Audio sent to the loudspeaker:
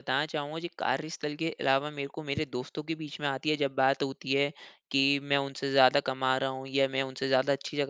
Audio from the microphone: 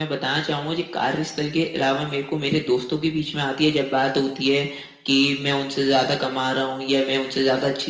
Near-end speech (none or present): none